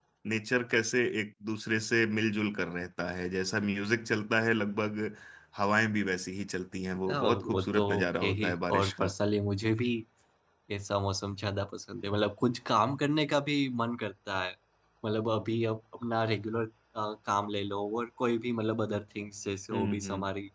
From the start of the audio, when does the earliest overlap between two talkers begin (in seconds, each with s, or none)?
7.1 s